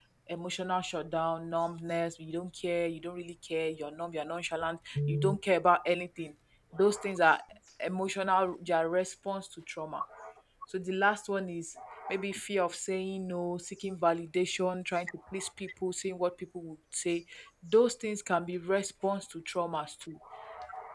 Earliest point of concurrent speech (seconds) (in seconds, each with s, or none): none